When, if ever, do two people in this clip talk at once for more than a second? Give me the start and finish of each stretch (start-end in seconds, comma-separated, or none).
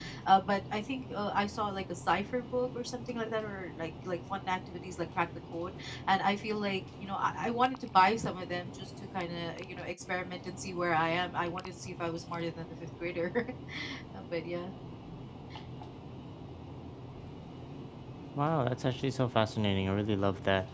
none